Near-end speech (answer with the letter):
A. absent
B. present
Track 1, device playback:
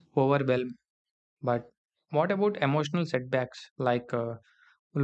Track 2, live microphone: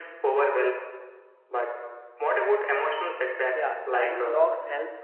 B